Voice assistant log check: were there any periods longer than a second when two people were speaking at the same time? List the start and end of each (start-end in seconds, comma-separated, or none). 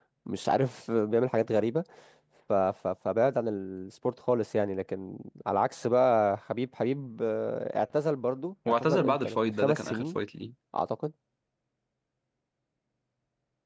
8.8-10.0